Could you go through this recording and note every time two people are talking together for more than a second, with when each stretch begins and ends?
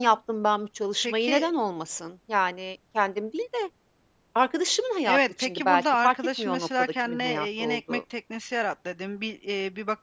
5.0-8.0

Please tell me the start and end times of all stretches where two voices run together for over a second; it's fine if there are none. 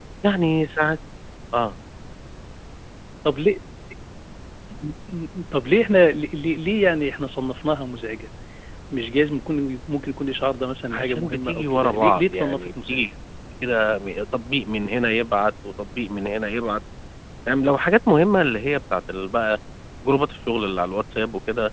10.9-13.1

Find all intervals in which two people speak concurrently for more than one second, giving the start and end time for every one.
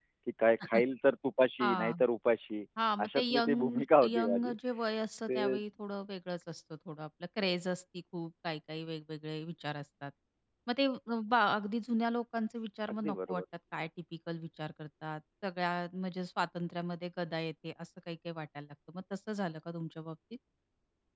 3.0-4.5

